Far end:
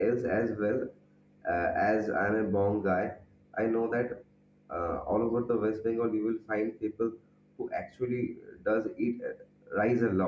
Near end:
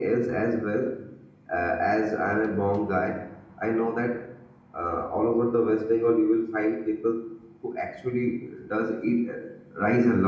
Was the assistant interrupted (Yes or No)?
No